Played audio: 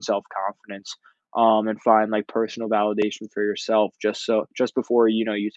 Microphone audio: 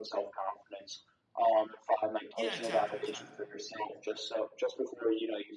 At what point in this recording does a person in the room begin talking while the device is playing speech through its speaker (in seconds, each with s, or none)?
2.3 s